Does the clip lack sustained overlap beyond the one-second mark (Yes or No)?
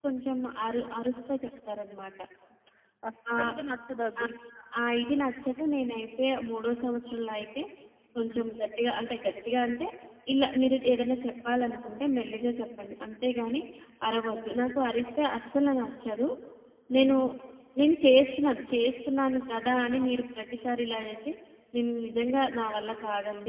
Yes